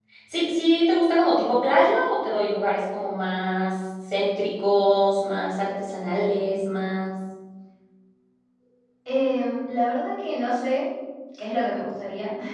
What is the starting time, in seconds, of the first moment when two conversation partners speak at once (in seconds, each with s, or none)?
none